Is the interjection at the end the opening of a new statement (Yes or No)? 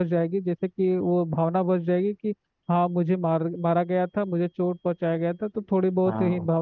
No